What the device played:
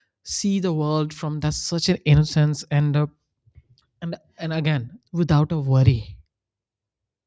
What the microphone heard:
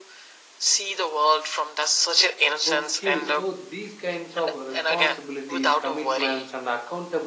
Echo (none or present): present